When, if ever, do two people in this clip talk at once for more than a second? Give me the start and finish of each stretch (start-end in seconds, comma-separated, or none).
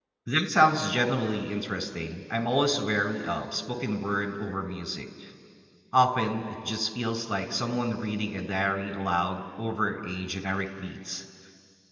none